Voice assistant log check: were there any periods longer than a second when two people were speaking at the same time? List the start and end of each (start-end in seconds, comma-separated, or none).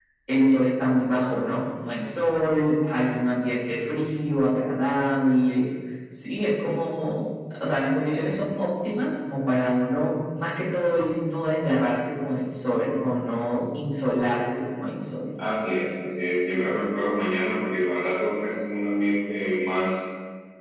none